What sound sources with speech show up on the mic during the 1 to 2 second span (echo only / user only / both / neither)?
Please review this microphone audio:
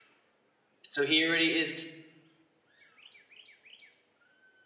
user only